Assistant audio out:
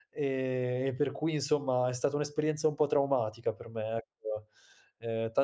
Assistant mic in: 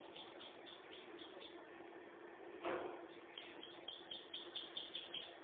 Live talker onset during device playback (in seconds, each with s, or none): none